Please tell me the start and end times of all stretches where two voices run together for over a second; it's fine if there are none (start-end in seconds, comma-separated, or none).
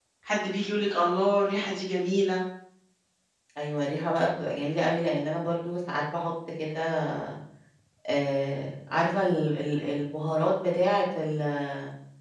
none